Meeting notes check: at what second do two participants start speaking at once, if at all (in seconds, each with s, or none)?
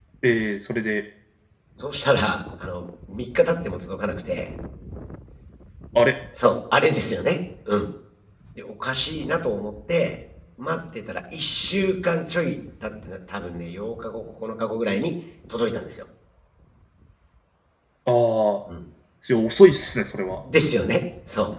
none